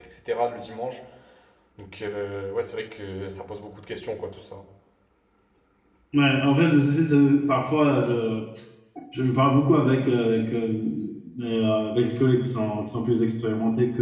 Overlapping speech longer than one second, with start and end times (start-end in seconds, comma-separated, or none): none